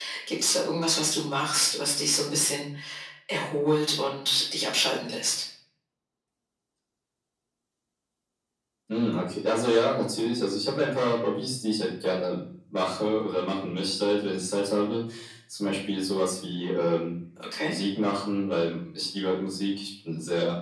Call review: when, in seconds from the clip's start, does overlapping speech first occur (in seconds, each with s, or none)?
none